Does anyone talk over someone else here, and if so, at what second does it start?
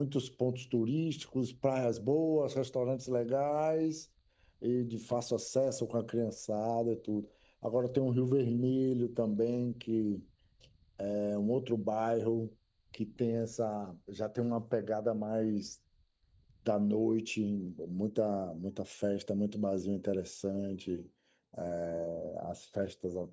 none

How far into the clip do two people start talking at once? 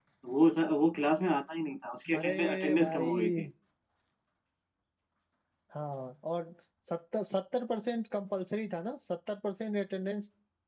2 s

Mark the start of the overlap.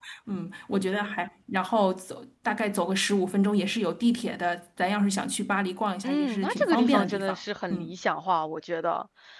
6 s

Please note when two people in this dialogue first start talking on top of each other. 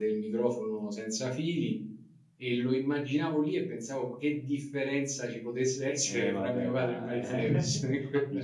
6 s

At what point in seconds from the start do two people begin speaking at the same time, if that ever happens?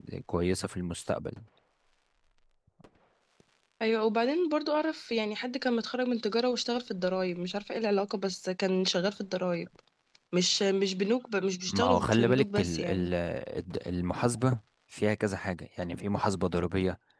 12 s

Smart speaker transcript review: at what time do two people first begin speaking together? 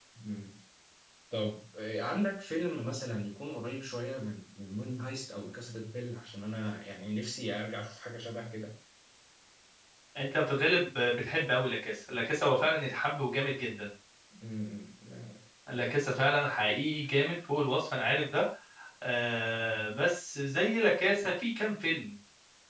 none

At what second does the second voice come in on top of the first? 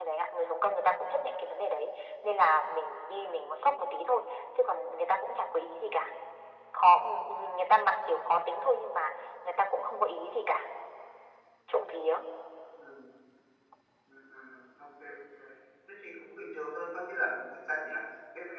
none

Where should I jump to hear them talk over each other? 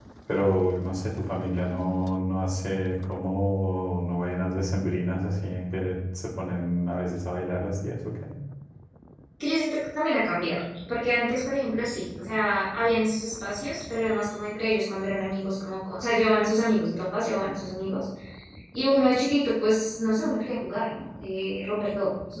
none

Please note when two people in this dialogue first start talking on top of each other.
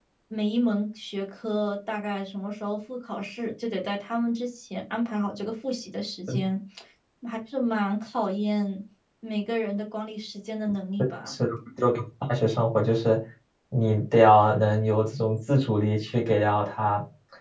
none

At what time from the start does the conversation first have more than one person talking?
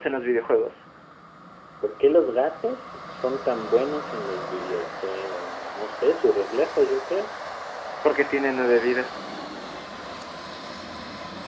none

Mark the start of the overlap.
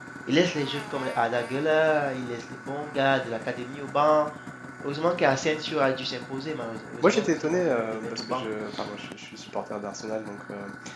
7 s

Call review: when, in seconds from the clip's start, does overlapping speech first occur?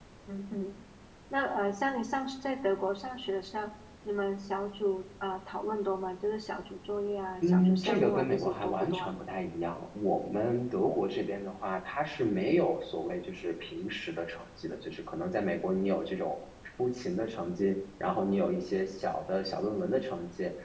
7 s

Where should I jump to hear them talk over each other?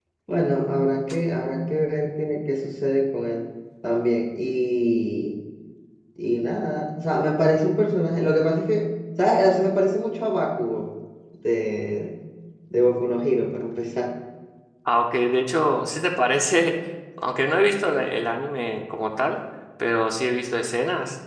none

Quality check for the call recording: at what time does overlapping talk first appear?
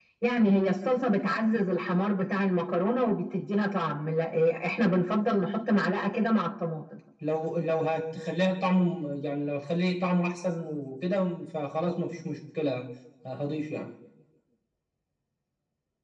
none

